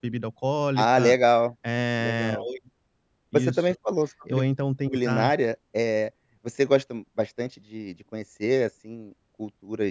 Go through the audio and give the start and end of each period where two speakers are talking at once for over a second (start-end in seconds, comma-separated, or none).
none